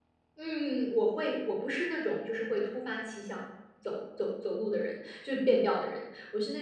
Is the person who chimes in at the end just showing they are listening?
Yes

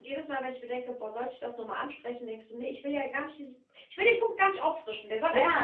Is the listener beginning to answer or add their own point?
Yes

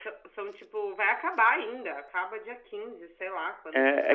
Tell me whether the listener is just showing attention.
No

